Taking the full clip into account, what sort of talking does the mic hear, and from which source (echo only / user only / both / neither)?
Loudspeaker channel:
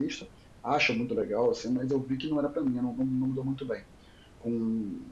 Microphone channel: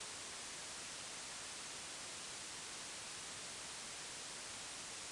neither